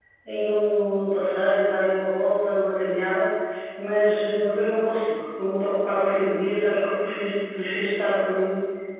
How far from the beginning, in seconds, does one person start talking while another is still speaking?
none

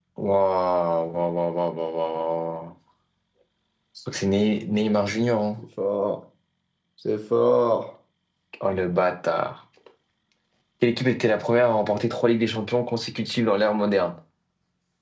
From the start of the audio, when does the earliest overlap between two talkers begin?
none

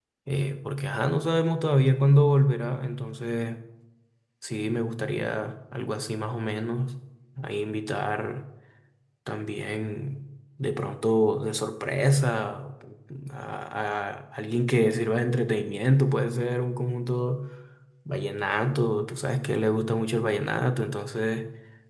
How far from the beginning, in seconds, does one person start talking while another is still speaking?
none

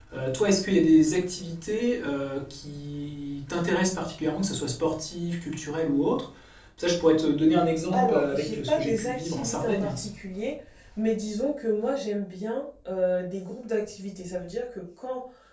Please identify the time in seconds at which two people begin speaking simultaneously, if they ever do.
8 s

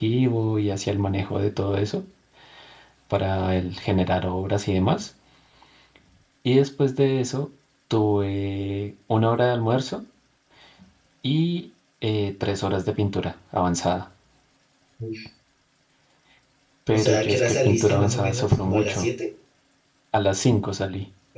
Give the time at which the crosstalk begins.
17 s

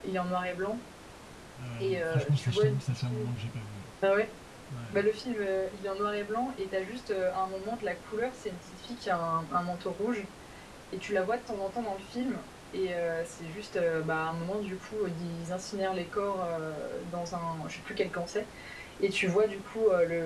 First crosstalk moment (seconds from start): 2 s

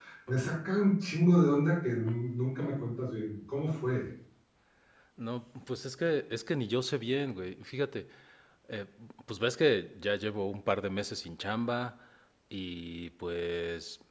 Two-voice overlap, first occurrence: none

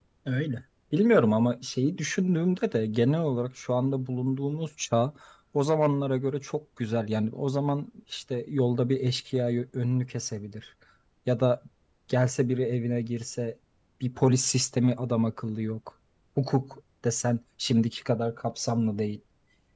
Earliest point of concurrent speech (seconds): none

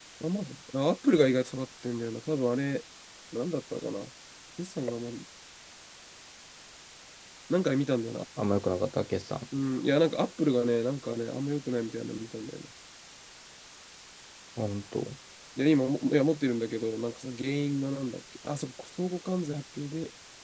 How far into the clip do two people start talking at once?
none

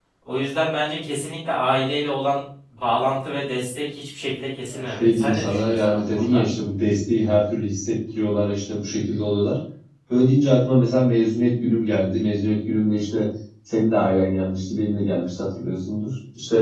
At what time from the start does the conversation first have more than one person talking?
5 s

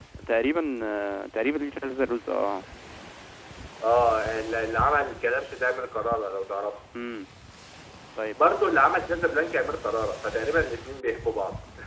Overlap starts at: none

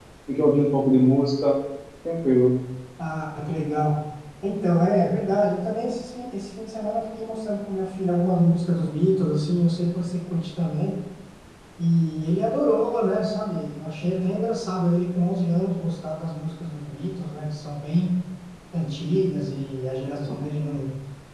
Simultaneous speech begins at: none

